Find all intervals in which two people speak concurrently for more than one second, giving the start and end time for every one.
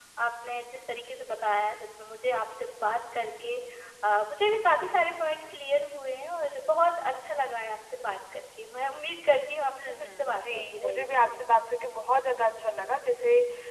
9.7-11.4

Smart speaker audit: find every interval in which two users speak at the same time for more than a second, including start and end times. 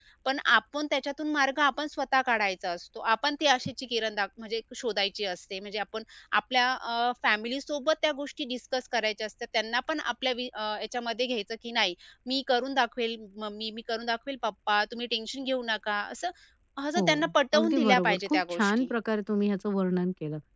17.0-18.9

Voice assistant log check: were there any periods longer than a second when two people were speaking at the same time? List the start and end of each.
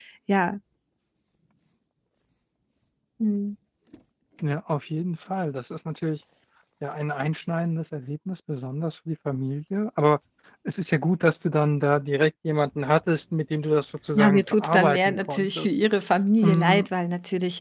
14.1-15.8

